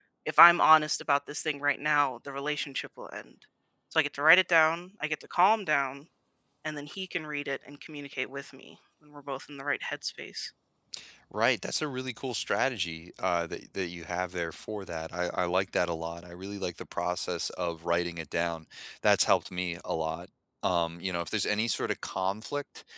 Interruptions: none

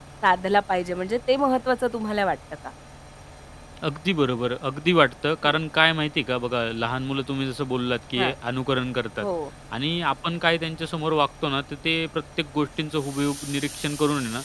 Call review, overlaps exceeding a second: none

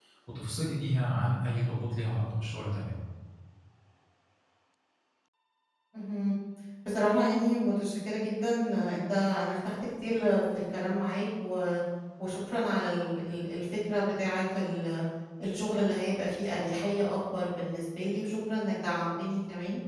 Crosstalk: none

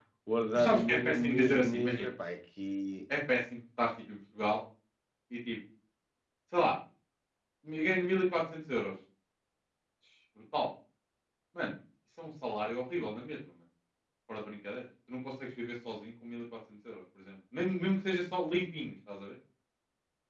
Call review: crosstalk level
present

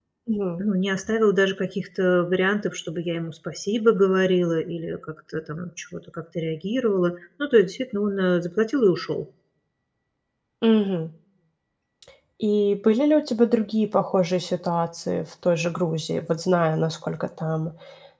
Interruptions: none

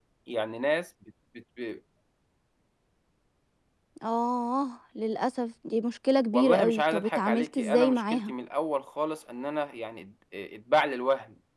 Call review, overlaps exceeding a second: present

